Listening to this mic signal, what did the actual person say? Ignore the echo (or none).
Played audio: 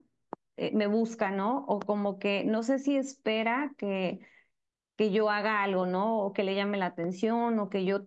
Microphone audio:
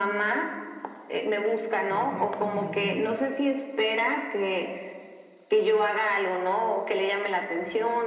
pues prácticamente